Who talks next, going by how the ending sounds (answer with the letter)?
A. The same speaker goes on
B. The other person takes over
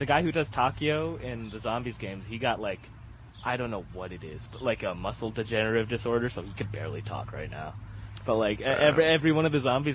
A